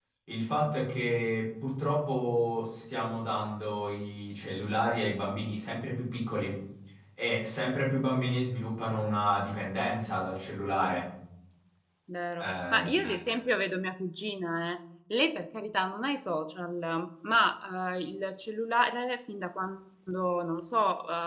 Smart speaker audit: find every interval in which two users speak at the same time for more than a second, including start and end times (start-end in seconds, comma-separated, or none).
none